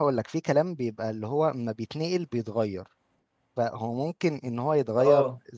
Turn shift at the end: No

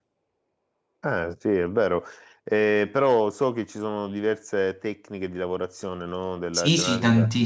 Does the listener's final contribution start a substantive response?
Yes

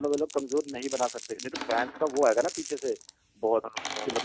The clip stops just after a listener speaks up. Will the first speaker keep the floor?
Yes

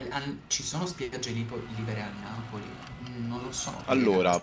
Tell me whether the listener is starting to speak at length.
Yes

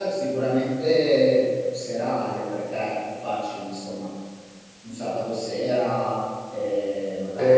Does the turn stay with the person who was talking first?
No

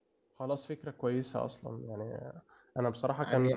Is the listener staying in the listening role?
Yes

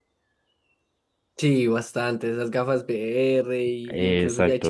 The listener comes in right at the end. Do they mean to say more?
No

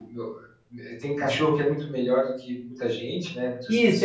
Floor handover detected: Yes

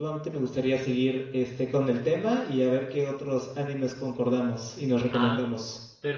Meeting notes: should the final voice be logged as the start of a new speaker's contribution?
Yes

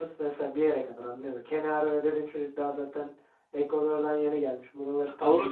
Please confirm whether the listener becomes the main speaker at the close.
Yes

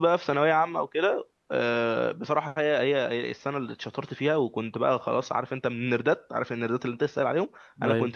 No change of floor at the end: Yes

